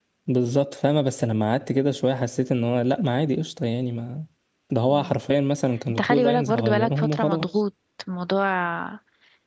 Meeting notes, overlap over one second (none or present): present